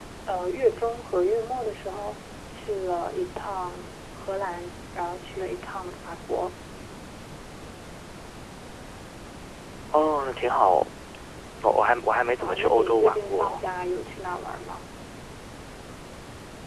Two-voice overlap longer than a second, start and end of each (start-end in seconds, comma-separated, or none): 12.4-13.6